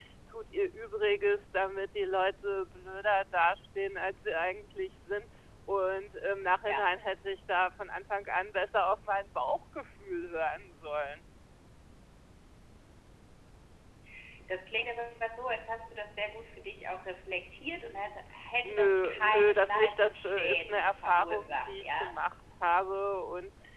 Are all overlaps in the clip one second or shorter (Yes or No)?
No